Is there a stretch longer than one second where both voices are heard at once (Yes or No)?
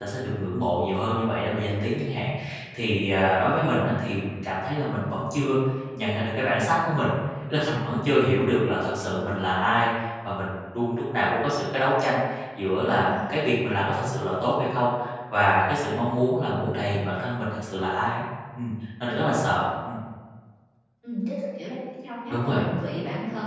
No